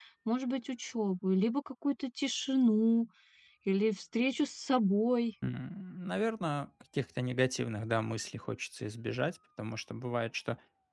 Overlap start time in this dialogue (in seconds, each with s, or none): none